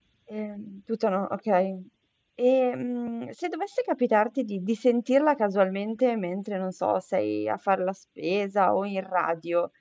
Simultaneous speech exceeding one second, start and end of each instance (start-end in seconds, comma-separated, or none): none